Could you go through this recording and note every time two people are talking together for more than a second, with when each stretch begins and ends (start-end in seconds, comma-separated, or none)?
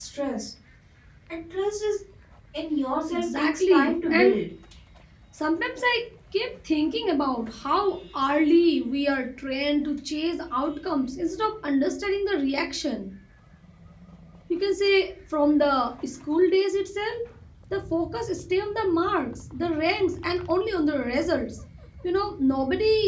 3.1-4.3